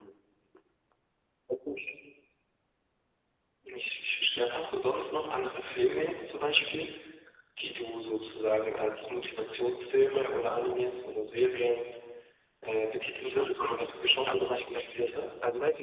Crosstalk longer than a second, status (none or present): present